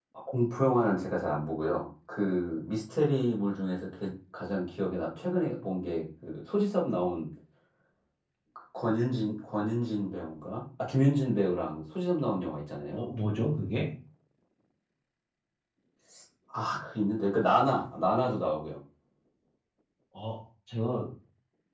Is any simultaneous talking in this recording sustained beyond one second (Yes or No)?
No